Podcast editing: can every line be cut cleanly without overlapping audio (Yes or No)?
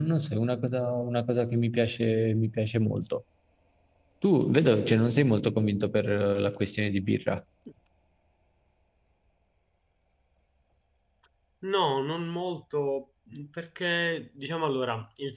Yes